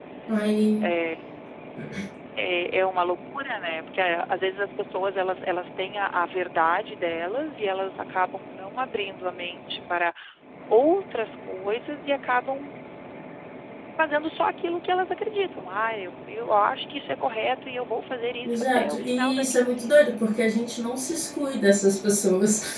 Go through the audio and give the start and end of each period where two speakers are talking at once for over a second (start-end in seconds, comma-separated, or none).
18.5-19.9